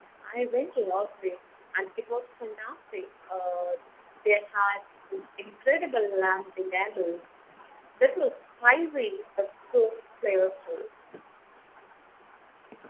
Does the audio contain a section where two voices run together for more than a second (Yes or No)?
No